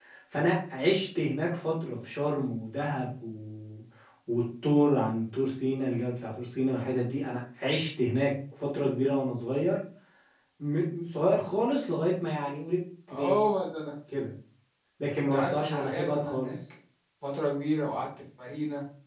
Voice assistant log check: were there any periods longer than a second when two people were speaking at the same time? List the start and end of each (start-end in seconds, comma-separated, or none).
15.2-16.5